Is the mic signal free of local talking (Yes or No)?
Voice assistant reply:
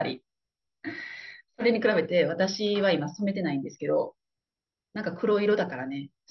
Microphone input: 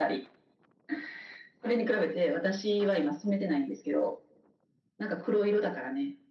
Yes